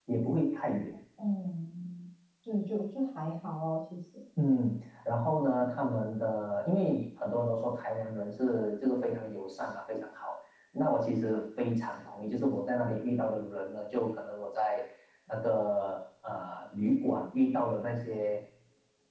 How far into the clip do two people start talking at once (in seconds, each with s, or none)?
none